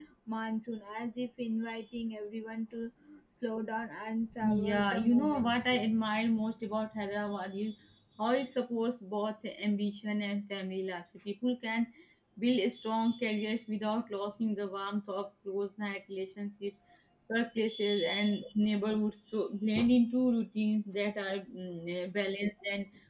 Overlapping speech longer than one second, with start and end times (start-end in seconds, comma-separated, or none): 4.4-5.6